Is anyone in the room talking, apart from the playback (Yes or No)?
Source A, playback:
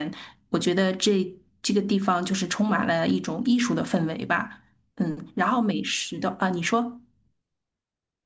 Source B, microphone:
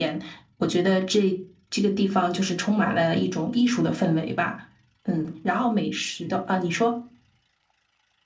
No